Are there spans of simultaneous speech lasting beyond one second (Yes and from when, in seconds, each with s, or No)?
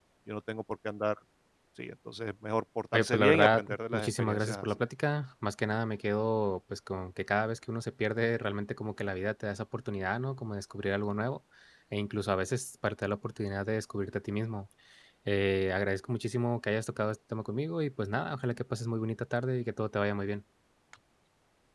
Yes, from 2.9 s